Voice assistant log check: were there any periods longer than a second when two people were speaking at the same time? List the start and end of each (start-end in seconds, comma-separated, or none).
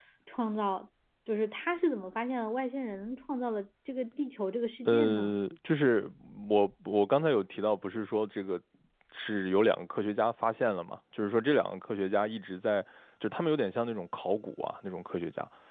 none